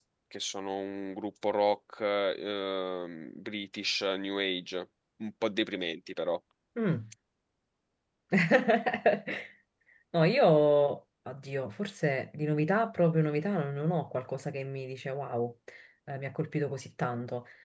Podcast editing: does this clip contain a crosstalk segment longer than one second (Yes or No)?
No